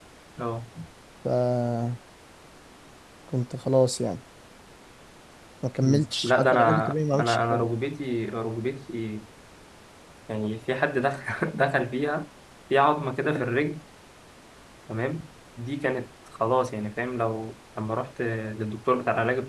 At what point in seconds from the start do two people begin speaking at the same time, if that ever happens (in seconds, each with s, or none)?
5.8 s